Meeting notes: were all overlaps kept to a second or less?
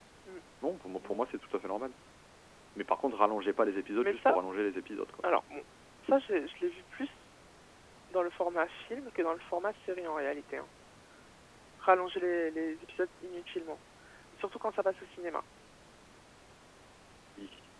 Yes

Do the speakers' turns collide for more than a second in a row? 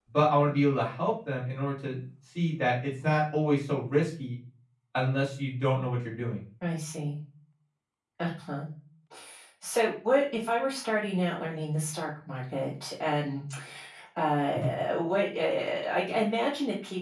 No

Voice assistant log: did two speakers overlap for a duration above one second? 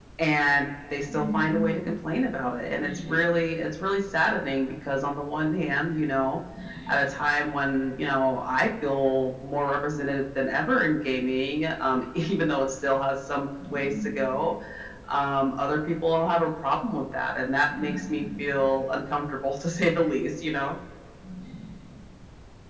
No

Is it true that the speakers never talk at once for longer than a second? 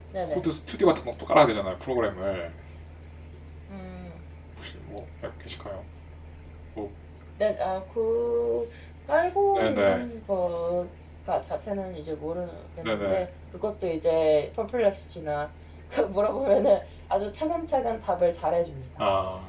Yes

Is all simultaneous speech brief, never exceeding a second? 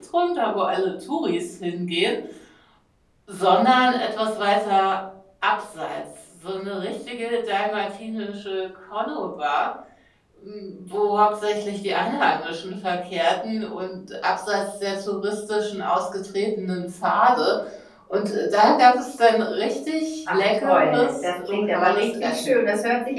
No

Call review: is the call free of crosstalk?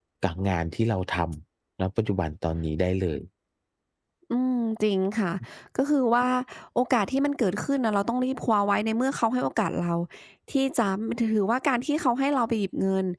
Yes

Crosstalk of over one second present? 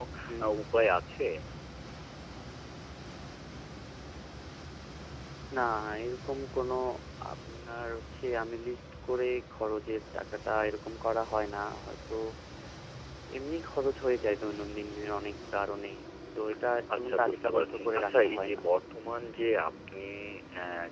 Yes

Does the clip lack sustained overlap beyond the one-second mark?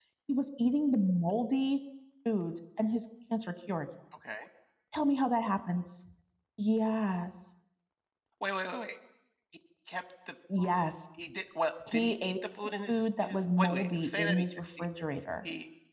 No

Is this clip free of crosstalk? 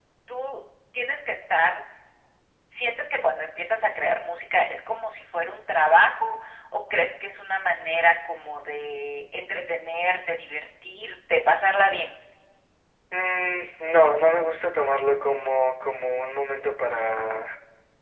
Yes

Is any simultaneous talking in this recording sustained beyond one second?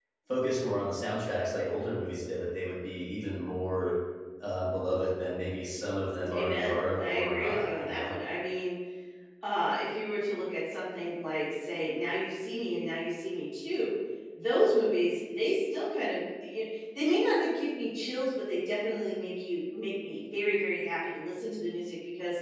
Yes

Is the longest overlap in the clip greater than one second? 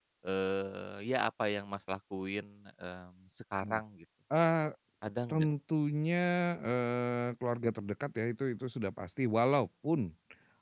No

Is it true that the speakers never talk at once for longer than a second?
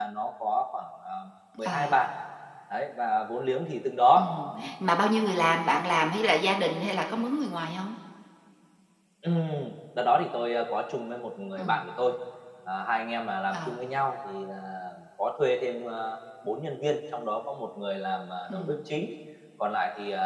Yes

